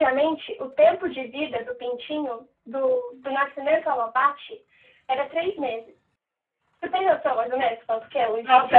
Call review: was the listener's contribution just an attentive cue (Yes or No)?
No